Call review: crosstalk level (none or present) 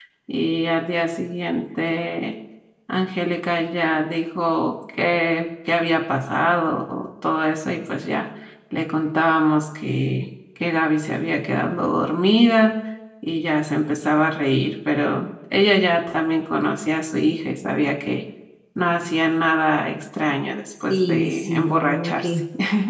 present